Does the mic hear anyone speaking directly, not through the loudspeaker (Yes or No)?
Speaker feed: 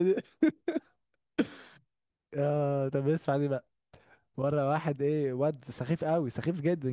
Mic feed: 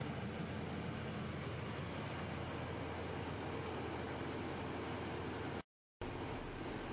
No